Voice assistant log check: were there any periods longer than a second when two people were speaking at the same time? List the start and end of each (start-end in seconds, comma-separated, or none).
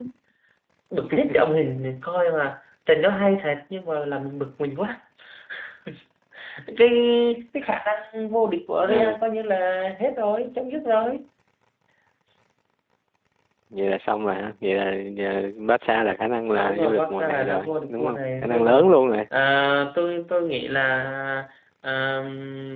16.5-18.9